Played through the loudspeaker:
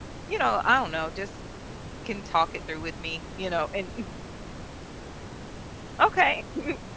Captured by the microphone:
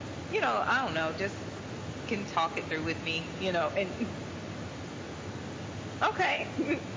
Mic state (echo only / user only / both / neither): echo only